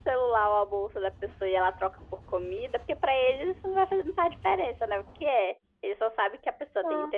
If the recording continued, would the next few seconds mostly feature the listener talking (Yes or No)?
No